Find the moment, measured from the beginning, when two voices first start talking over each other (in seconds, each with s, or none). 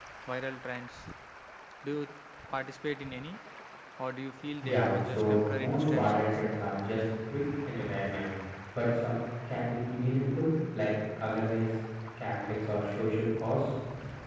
4.6 s